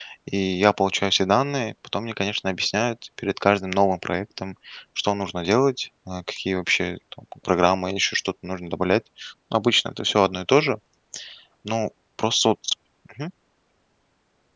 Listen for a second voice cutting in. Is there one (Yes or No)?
No